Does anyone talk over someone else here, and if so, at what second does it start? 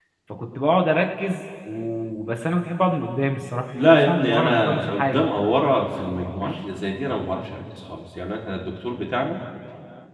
3.7 s

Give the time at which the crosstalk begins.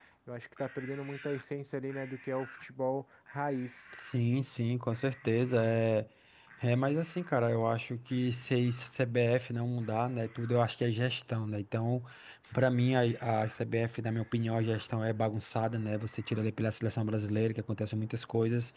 none

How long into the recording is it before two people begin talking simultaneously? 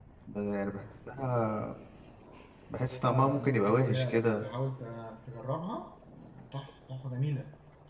3.0 s

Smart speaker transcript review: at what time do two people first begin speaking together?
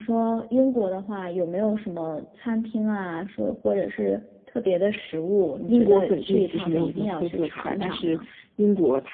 5.7 s

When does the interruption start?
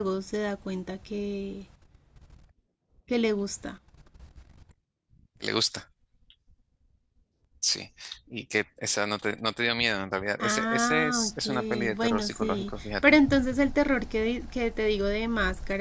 10.4 s

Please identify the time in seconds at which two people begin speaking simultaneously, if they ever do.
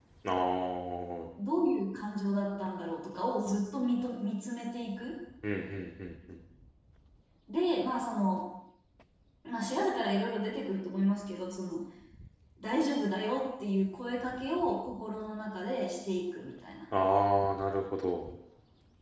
none

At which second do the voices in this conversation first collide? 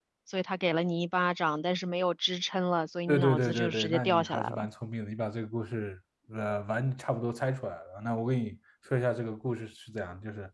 3.1 s

